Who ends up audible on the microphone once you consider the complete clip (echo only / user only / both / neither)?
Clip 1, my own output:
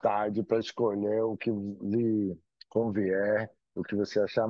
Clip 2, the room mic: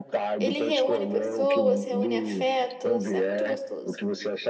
both